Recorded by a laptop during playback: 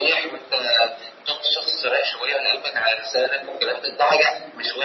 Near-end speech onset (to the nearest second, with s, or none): none